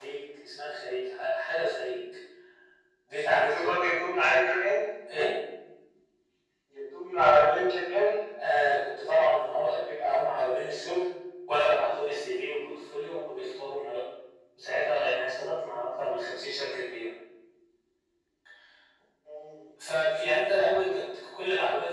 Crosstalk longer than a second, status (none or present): none